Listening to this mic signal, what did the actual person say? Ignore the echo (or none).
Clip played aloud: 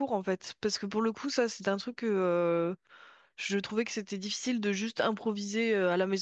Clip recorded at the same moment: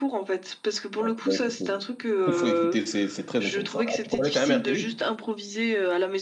Ouais, faut écouter. Il faut écouter, c'est c'est très intéressant. Ah, tu connais quand même R. Kelly?